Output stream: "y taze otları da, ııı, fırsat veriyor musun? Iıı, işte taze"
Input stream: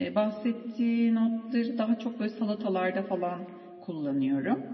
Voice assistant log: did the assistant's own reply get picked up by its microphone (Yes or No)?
No